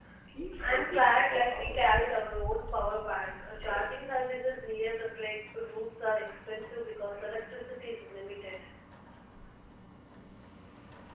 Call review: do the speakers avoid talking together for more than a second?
No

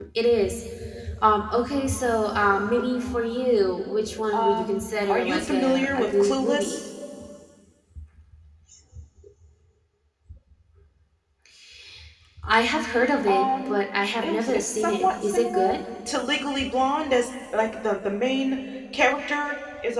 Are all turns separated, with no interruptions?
No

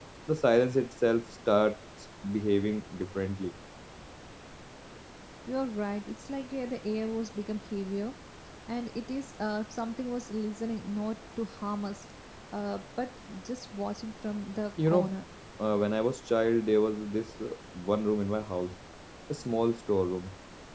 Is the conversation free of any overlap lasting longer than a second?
Yes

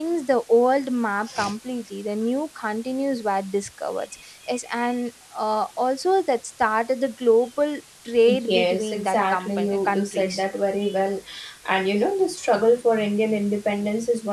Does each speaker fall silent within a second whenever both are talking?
No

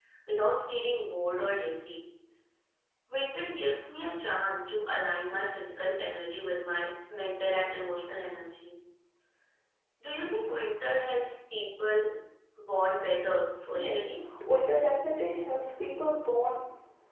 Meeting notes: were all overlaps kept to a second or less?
Yes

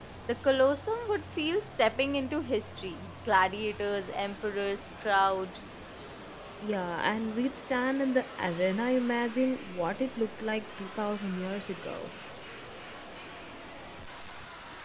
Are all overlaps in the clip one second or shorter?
Yes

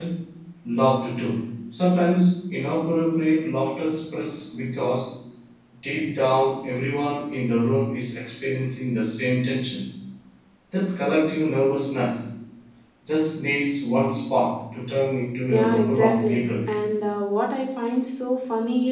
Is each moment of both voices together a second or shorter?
No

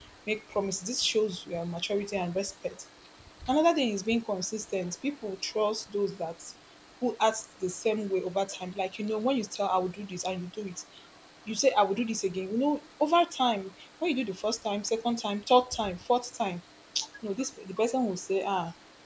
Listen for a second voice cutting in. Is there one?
No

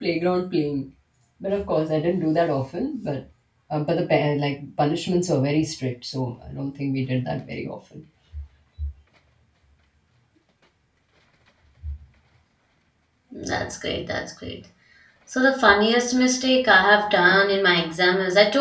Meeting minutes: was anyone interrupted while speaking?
No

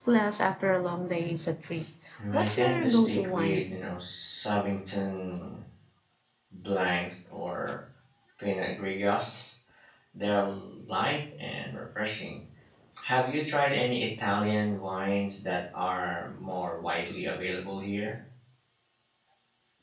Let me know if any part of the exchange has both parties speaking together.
Yes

